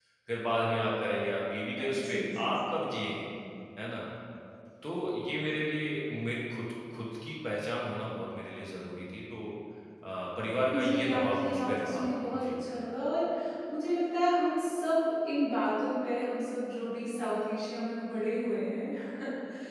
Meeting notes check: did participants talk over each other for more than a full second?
Yes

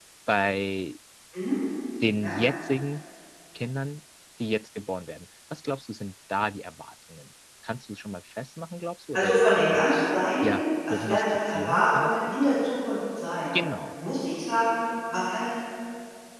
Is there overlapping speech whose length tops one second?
Yes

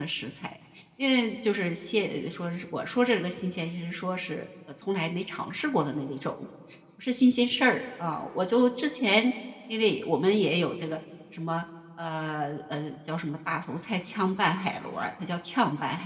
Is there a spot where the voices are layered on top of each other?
No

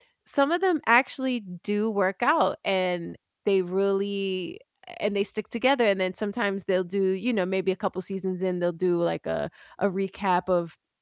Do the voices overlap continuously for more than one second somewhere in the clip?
No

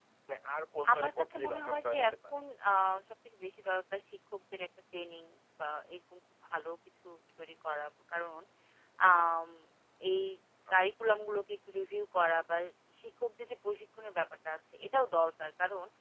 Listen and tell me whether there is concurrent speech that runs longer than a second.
Yes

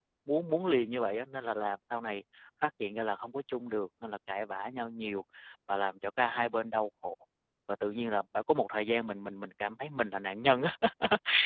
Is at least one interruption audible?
No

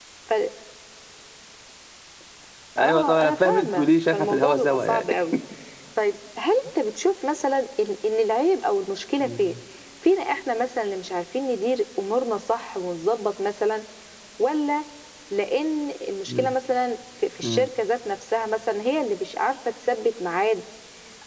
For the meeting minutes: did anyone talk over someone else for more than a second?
Yes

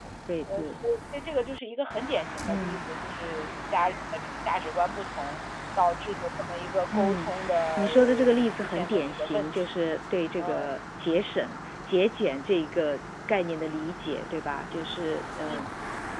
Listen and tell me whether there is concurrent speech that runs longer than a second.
Yes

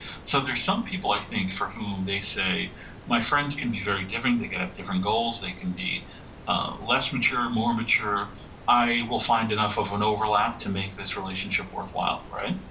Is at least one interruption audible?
No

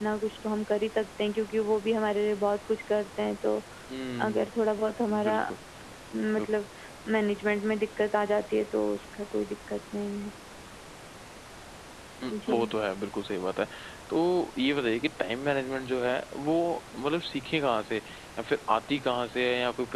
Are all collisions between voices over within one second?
Yes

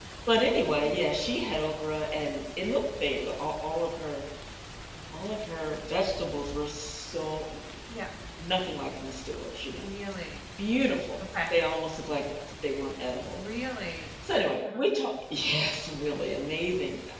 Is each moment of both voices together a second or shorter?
Yes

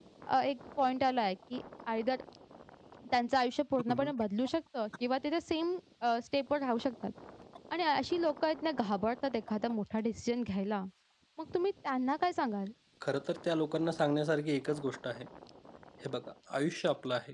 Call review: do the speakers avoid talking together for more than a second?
Yes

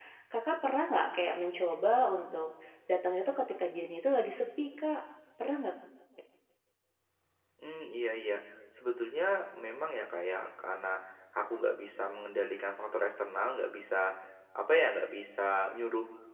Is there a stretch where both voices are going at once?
No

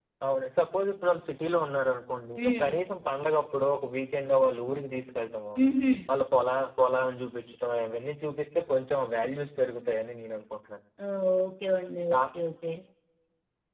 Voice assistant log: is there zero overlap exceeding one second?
Yes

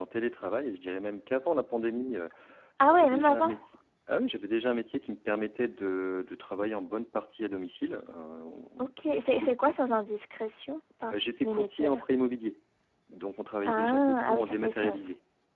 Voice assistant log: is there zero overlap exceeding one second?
No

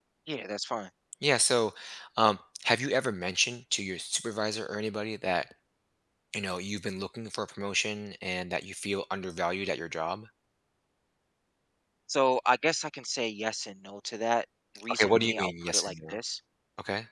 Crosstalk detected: Yes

